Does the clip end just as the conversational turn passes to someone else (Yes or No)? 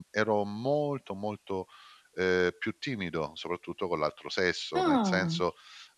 No